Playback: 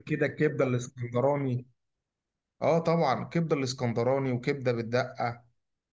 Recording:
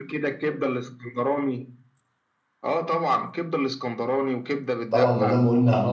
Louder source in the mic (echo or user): user